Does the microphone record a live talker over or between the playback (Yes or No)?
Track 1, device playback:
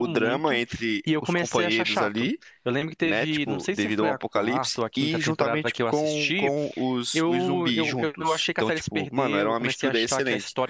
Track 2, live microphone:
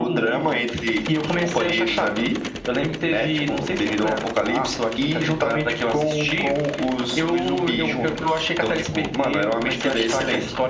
No